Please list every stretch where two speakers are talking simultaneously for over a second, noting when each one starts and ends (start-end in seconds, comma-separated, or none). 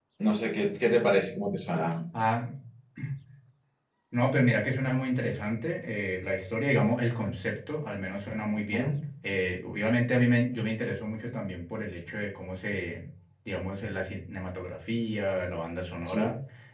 none